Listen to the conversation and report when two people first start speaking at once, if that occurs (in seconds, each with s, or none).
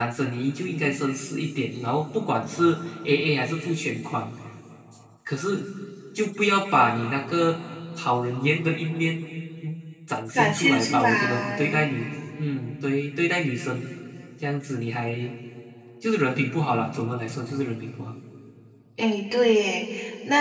10.4 s